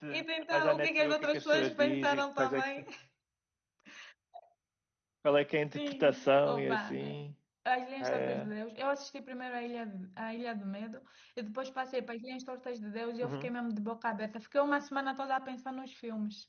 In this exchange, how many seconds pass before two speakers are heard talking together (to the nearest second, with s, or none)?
1 s